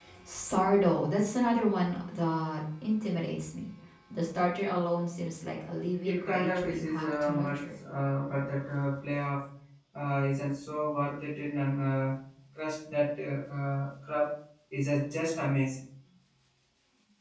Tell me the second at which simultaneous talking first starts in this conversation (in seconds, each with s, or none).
6.0 s